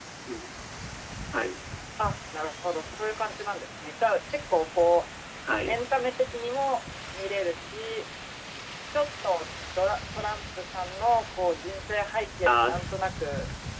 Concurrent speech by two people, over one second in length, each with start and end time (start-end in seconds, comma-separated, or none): none